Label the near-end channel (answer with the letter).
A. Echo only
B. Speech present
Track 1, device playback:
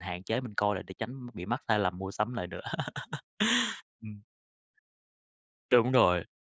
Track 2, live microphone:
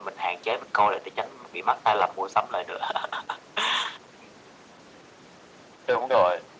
A